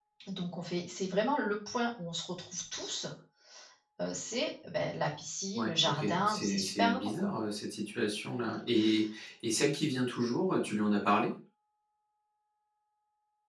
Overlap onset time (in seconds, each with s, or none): 5.5 s